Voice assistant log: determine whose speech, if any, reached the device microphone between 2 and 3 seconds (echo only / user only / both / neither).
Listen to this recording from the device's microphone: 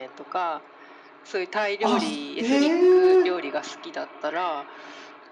both